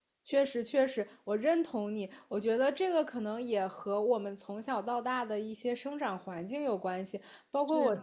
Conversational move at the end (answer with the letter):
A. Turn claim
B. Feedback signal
B